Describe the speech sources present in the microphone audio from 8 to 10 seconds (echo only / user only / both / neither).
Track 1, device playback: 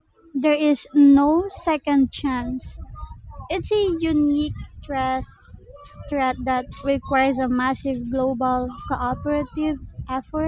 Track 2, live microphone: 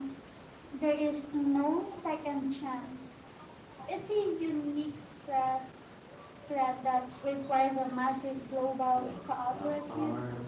both